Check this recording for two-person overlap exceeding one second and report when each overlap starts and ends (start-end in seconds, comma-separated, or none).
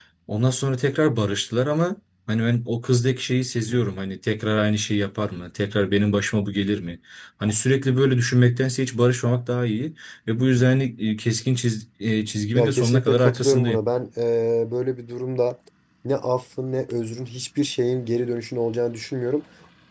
12.5-13.8